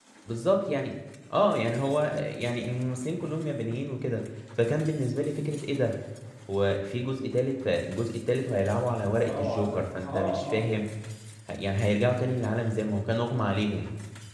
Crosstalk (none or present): present